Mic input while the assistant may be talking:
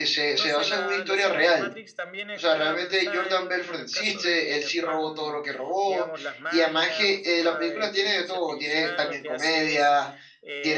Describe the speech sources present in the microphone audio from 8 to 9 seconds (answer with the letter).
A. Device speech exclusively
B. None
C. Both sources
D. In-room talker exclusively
C